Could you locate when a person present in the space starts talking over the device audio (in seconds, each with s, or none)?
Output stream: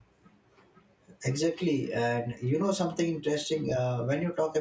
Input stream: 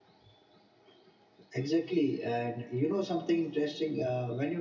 none